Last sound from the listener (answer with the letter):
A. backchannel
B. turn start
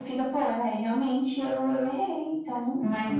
B